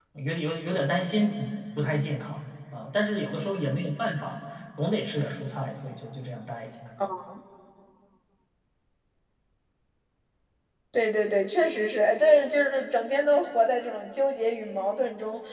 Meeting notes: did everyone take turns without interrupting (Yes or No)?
Yes